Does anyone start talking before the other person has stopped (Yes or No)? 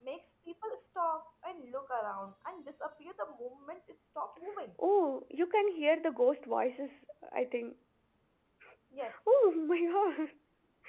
No